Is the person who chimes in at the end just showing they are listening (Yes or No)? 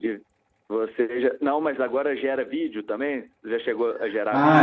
No